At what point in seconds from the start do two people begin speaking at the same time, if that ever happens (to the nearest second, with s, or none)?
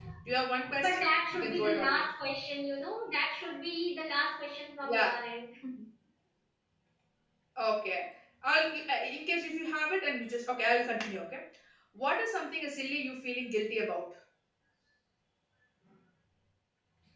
1 s